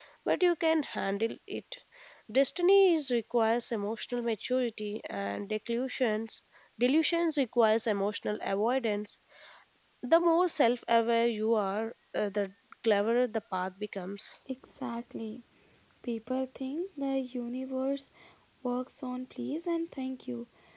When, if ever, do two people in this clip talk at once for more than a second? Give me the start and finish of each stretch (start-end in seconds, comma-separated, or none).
none